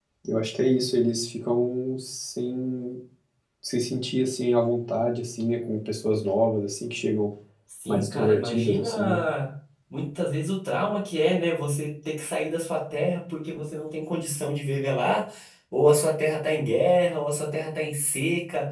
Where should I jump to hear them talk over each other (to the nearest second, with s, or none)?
8 s